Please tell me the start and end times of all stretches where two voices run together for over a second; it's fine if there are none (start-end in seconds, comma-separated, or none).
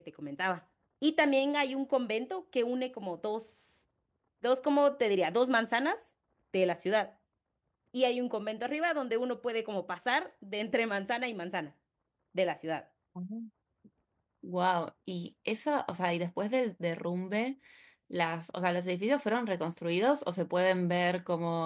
none